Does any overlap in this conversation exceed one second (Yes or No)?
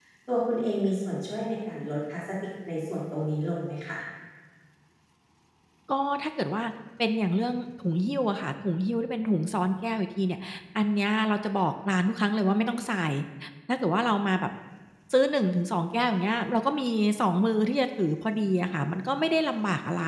No